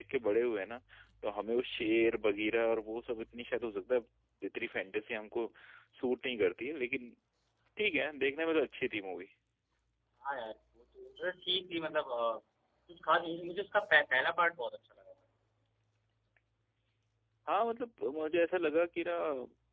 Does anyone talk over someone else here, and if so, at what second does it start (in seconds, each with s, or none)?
none